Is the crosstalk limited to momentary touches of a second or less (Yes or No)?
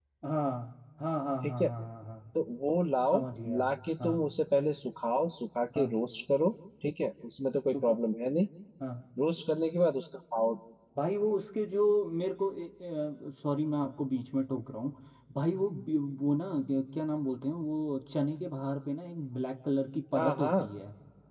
Yes